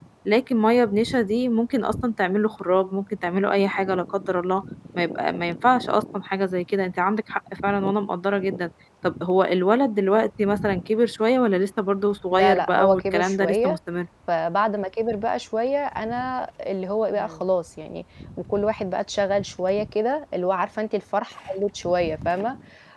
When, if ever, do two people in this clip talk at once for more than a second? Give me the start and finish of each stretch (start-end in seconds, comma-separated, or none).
12.3-13.8